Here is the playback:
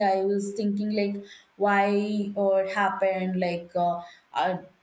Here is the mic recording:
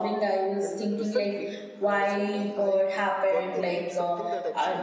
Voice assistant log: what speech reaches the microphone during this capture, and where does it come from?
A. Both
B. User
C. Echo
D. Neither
A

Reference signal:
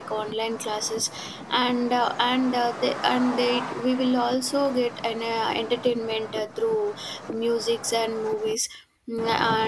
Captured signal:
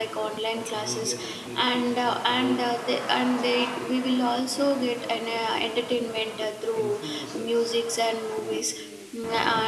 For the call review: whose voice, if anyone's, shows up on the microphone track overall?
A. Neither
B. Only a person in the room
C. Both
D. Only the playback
C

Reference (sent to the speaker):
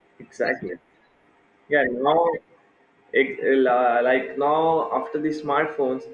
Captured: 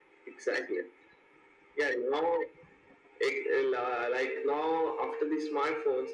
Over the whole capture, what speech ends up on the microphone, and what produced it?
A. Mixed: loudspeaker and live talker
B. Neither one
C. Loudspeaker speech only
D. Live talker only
C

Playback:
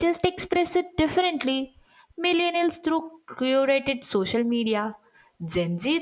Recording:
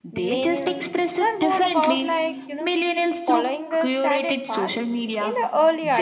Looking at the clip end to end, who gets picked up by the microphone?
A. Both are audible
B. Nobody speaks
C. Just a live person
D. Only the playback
A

